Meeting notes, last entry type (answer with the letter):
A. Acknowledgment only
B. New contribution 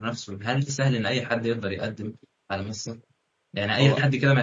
A